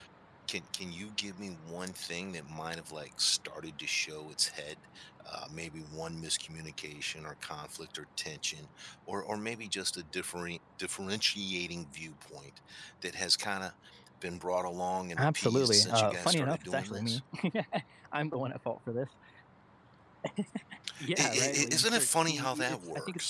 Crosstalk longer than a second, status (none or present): present